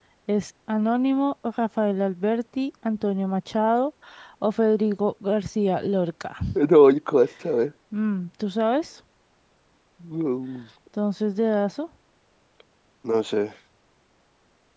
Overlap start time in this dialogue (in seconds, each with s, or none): none